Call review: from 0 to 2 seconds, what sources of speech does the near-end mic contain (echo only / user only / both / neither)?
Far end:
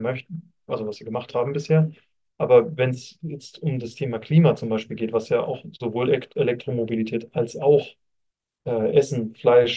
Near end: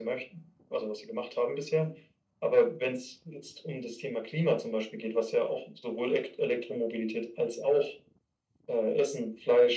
echo only